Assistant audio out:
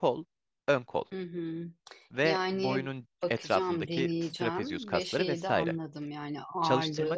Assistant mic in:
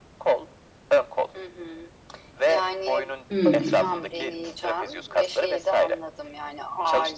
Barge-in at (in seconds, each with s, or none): 3.3 s